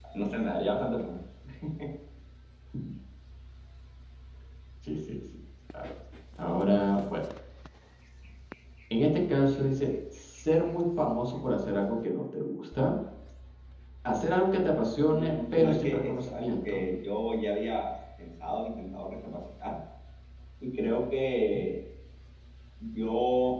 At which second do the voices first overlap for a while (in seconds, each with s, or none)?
15.1 s